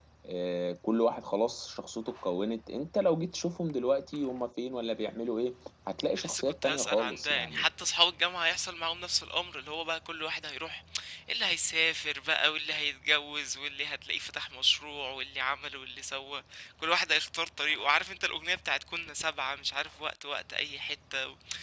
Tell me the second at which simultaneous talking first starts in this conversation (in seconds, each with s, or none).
6.0 s